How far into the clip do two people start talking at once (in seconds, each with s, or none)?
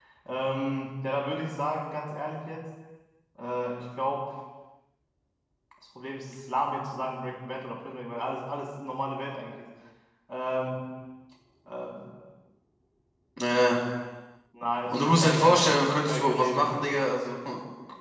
14.9 s